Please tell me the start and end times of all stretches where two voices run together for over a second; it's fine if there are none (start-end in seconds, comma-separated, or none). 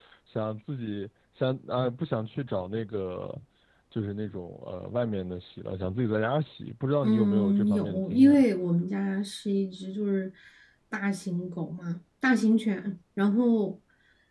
7.0-8.4